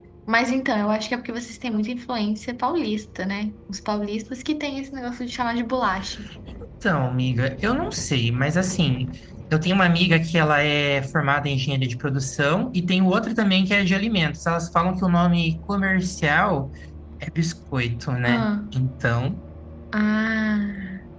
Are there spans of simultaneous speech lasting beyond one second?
No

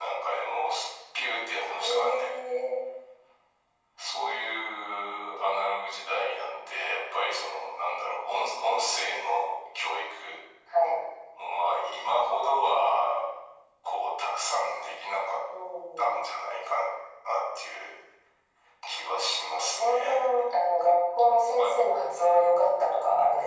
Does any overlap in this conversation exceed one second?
No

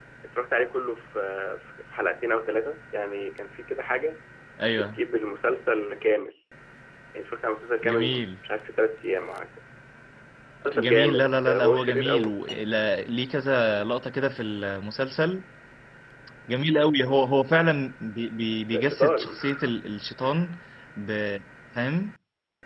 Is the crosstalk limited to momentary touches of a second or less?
No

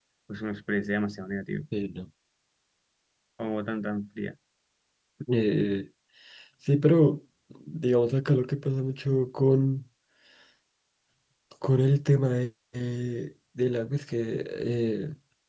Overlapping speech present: No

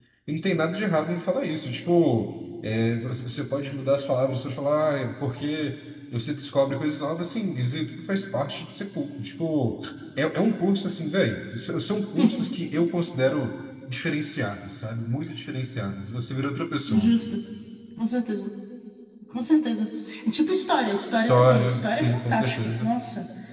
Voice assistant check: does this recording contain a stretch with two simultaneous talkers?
Yes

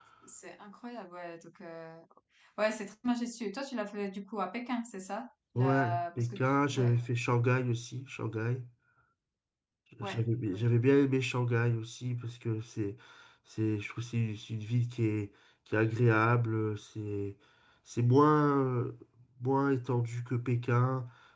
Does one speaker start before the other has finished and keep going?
Yes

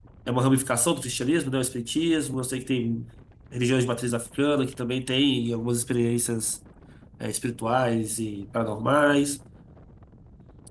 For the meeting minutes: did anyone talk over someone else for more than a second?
No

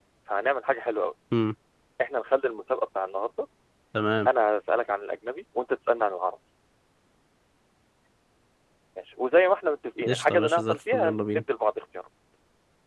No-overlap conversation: No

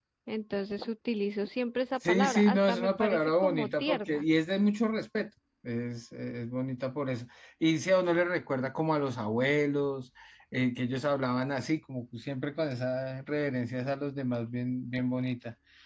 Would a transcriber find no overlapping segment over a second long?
No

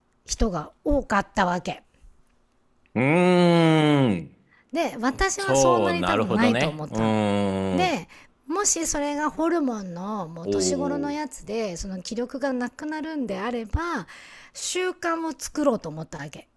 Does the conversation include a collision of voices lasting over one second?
Yes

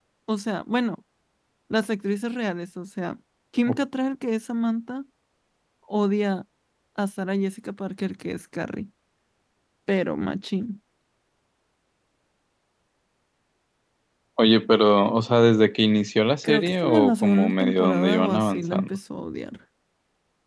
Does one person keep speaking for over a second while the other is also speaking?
Yes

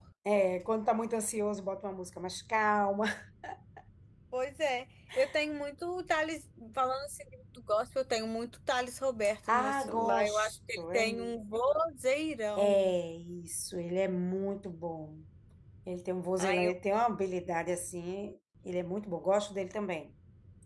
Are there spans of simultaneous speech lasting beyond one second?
Yes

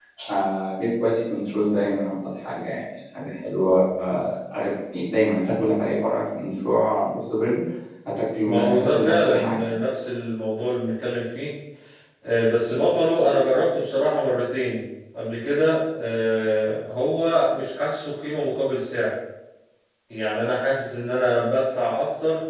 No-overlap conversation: No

